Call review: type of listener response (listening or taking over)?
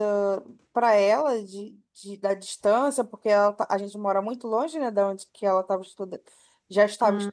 listening